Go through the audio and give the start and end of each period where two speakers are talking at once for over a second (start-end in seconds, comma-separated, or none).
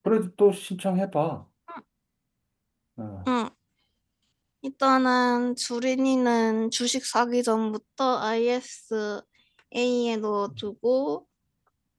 none